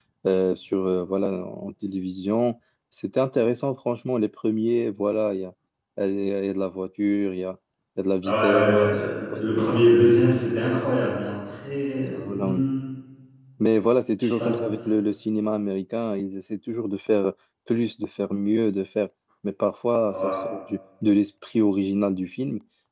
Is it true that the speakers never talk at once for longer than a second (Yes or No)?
No